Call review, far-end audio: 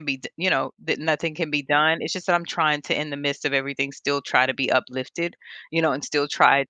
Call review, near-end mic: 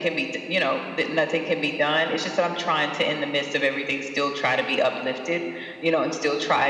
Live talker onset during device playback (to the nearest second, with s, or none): none